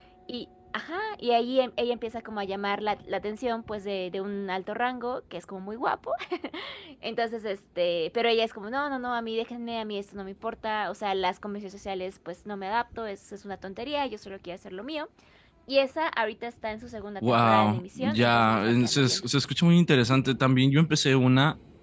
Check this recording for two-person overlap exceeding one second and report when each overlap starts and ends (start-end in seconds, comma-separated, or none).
17.3-19.2